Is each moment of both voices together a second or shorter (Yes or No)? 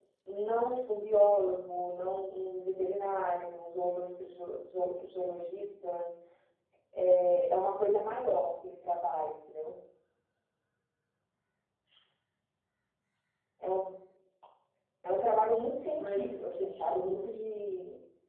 No